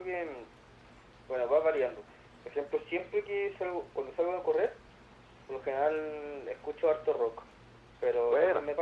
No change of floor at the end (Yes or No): Yes